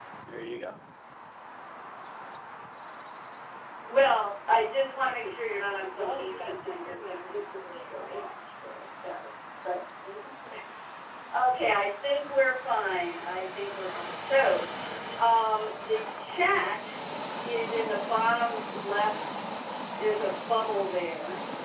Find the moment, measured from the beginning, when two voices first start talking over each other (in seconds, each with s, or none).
5.0 s